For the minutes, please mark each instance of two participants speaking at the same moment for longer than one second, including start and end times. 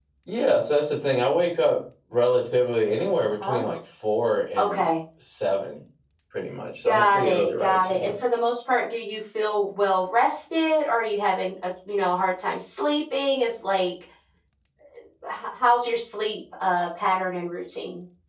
6.8-8.1

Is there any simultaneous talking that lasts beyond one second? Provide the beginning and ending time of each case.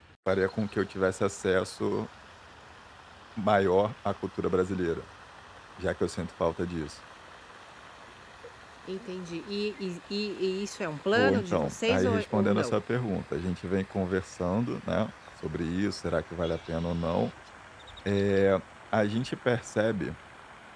11.1-12.8

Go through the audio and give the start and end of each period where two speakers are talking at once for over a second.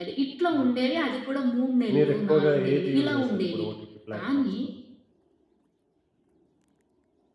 1.9-3.6

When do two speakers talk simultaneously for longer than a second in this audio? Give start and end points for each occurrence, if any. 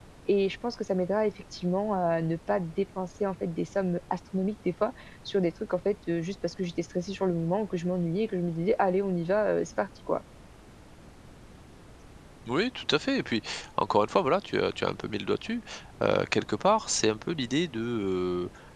none

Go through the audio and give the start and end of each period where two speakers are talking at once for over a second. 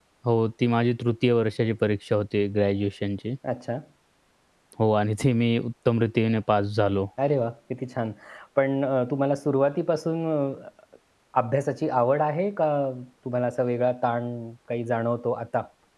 none

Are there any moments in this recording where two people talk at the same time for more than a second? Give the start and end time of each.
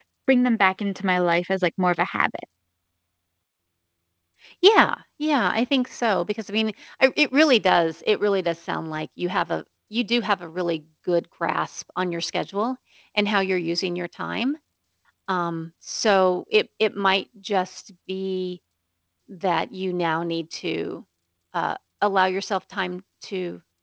none

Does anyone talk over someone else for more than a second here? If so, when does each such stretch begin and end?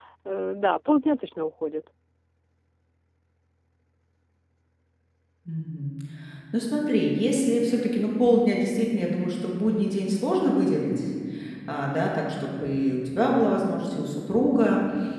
none

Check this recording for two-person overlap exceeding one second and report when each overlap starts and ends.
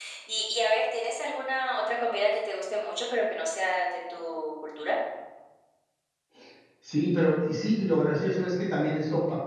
none

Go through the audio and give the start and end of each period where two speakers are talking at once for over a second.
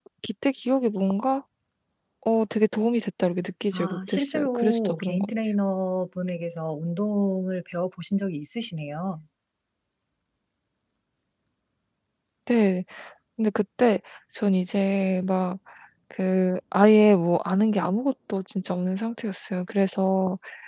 3.7-5.3

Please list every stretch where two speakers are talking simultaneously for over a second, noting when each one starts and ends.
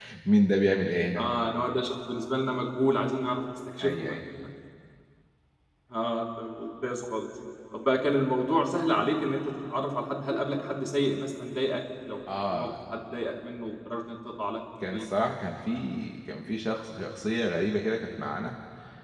none

